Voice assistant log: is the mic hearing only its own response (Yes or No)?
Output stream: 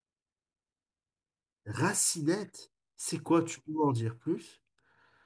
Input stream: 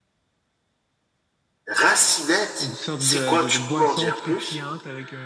No